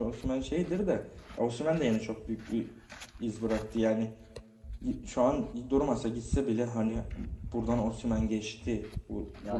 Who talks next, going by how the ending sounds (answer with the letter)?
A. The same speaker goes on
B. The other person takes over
B